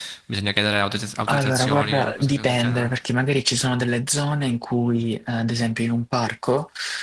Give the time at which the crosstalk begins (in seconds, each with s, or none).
1.2 s